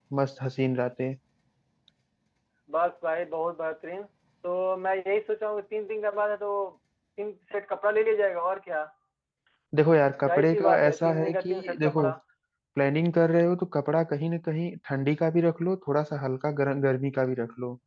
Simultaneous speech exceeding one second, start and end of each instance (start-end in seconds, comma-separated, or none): 10.2-12.1